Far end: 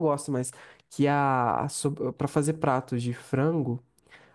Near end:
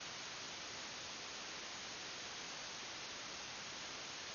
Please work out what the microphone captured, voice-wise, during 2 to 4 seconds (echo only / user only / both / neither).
neither